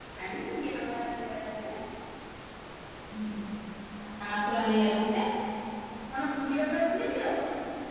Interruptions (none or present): none